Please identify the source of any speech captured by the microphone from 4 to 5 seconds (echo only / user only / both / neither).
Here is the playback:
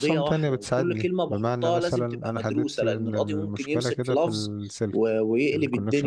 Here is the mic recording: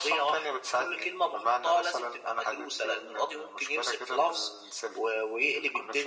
echo only